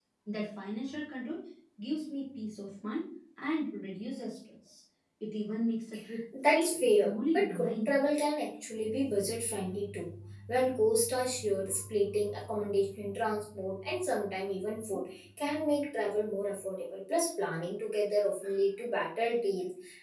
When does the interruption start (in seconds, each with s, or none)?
6.3 s